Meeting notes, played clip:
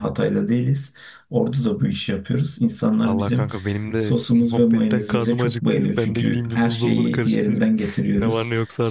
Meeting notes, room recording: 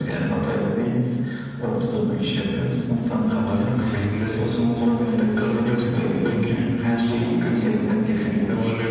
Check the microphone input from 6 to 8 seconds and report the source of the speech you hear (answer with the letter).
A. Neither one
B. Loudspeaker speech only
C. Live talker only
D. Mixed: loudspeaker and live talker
B